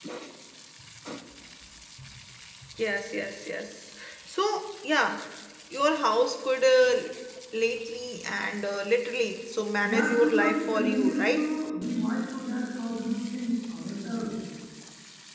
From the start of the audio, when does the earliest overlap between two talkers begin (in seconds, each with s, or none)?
9.8 s